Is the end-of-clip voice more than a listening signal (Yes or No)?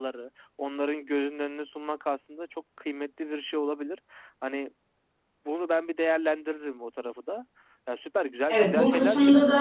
Yes